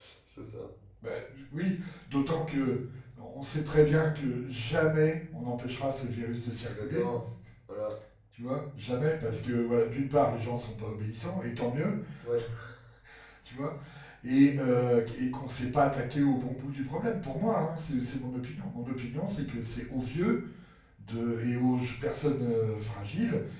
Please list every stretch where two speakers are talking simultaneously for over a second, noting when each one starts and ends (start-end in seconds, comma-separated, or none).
none